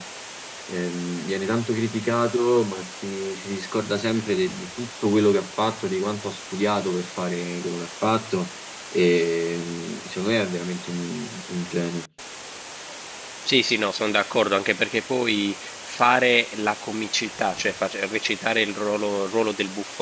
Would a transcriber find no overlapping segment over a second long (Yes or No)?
Yes